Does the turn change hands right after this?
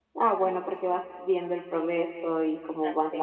No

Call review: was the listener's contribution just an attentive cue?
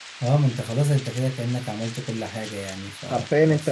No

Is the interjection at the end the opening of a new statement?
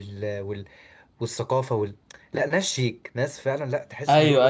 Yes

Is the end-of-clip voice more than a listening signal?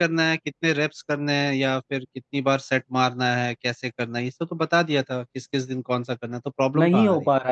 Yes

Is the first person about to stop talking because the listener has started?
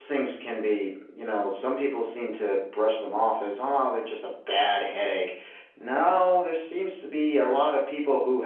No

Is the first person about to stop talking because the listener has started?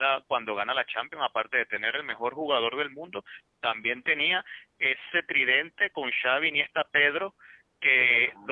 No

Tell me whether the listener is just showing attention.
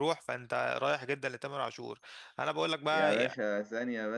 No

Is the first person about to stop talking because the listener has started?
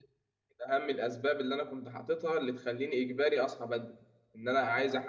No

